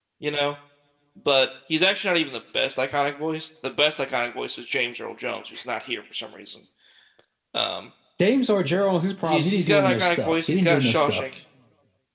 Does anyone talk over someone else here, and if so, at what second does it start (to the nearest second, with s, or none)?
9 s